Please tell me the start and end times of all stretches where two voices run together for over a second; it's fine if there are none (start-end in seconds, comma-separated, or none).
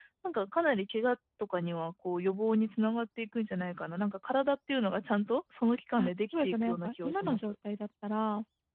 6.0-7.5